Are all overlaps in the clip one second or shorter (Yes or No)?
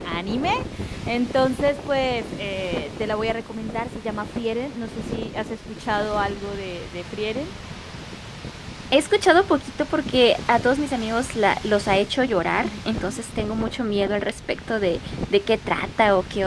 Yes